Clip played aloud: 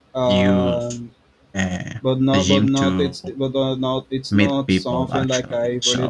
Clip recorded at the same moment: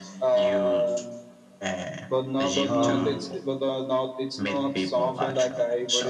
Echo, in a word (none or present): present